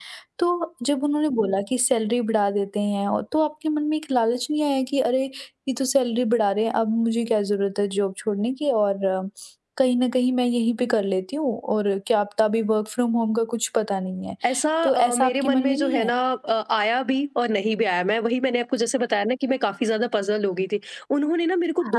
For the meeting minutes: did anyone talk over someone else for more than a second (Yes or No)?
Yes